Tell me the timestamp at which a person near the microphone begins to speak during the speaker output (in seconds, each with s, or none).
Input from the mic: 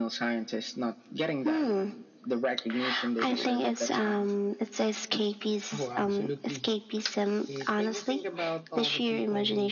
5.7 s